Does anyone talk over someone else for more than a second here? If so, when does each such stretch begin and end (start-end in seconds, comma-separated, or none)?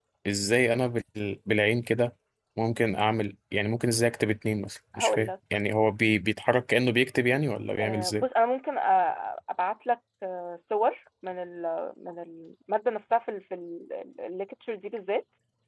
none